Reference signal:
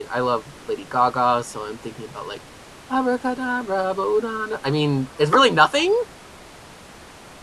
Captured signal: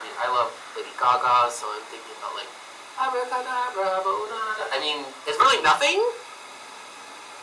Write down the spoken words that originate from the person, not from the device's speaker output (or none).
none